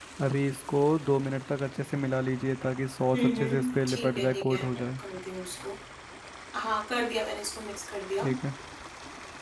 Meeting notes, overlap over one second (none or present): present